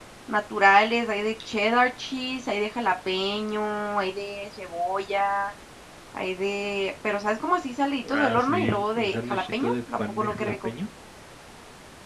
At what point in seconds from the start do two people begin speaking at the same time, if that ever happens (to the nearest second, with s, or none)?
8 s